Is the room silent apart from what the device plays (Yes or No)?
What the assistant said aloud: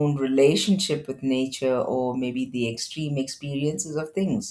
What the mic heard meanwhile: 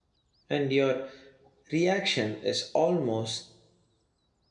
No